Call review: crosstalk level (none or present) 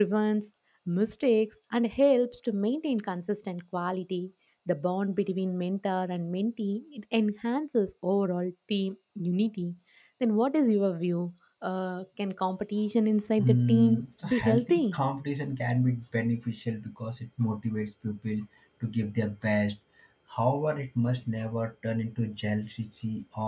present